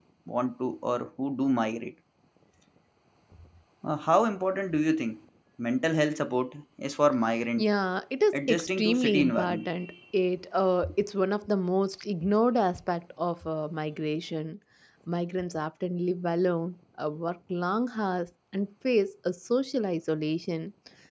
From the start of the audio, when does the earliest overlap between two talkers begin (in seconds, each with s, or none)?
8.3 s